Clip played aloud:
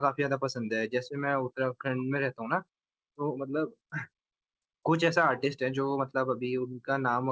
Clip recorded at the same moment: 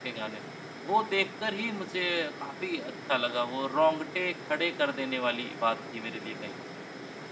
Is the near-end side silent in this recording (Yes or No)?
No